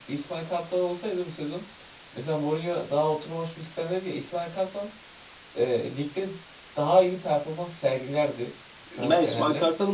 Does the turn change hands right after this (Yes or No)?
Yes